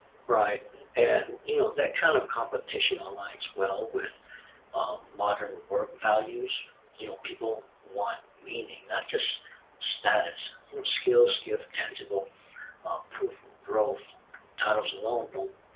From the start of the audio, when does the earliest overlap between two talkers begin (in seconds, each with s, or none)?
none